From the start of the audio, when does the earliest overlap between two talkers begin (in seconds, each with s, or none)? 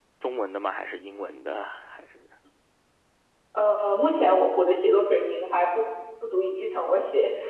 none